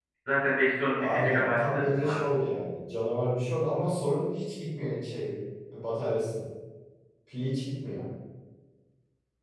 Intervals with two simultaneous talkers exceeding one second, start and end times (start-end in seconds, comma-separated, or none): 1.0-2.5